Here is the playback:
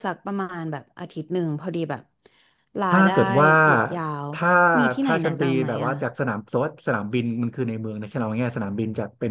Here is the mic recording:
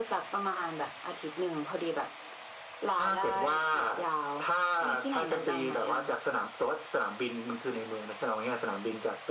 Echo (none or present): present